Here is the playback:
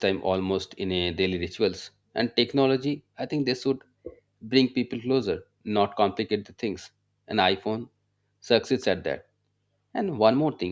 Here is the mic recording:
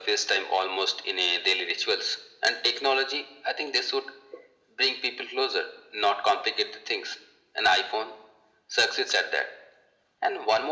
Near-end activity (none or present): none